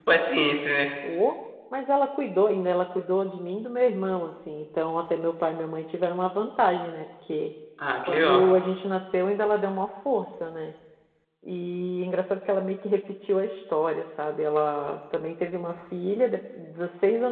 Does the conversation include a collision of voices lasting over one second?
No

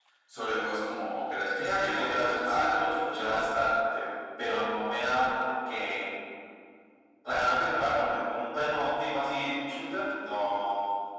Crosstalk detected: Yes, from 1.6 s

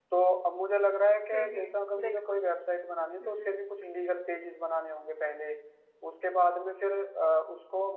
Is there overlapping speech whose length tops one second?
Yes, from 1.3 s

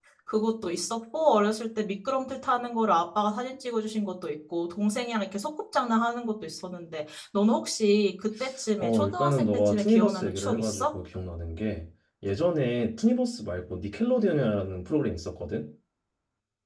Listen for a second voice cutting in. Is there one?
Yes, from 8.8 s

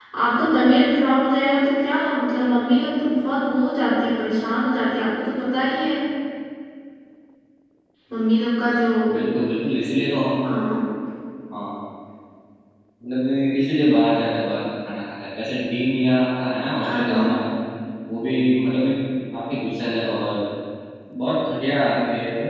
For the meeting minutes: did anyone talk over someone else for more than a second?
No

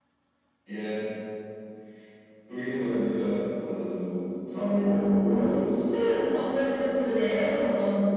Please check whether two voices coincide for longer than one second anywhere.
Yes, from 4.5 s

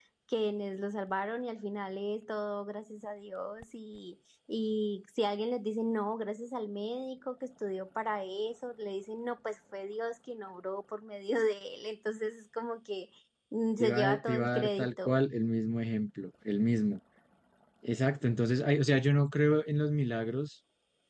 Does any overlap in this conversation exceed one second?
Yes, from 13.8 s

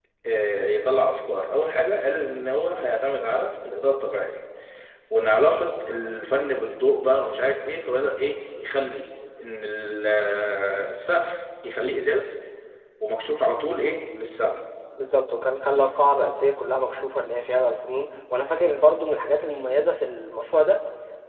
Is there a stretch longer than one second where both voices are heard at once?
No

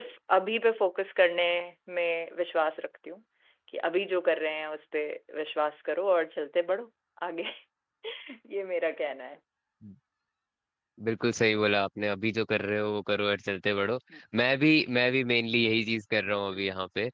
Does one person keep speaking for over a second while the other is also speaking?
No

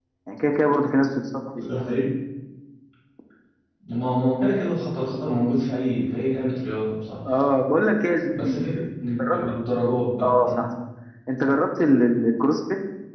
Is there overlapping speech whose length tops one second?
No

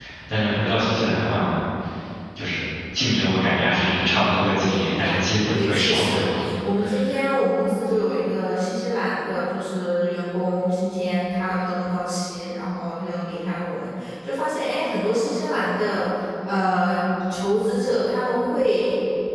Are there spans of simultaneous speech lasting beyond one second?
Yes, from 4.1 s

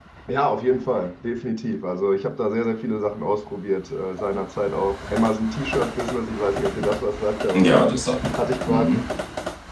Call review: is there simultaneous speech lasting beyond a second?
No

